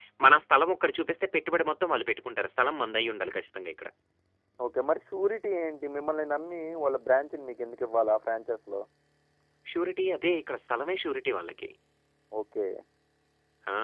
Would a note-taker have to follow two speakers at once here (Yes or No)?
No